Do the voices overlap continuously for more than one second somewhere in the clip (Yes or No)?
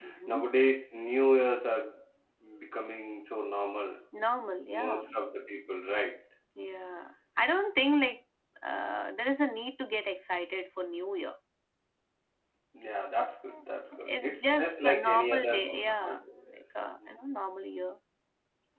Yes